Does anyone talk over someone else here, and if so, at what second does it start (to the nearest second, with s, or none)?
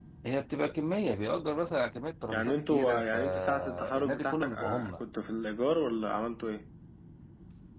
2 s